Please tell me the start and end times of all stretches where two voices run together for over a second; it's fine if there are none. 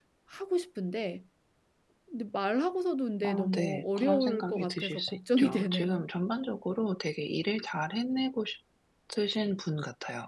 3.2-6.0

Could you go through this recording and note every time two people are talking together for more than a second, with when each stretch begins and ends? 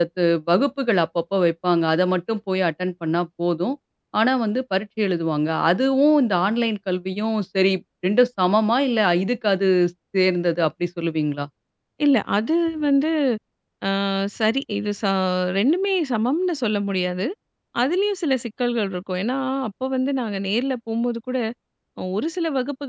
none

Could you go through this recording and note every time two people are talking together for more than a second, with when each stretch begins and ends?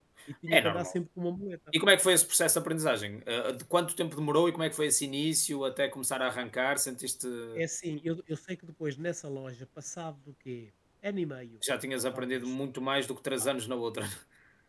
none

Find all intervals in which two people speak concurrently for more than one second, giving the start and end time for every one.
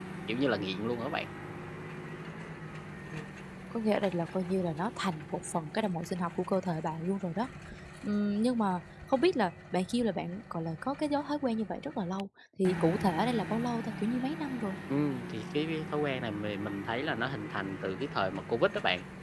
none

